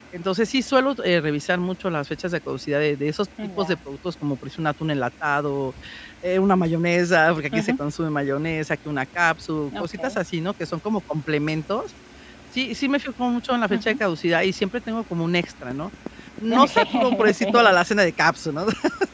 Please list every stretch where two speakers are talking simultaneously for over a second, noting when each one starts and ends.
16.5-17.8

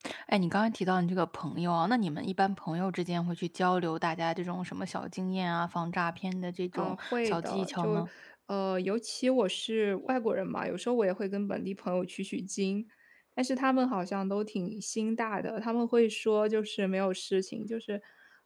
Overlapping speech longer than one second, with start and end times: 6.7-8.1

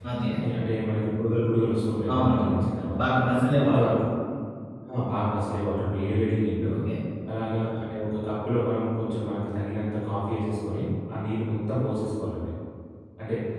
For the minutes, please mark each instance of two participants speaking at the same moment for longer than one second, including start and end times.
none

